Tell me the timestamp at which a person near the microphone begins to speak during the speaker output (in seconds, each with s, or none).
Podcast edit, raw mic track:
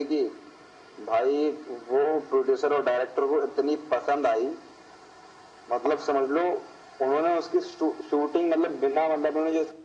none